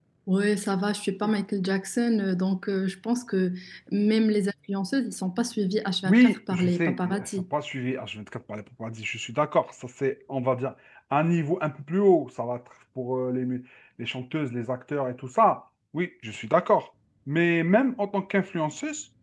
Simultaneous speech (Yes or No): Yes